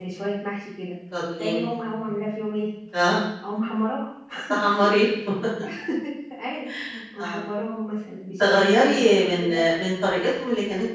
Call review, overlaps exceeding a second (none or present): present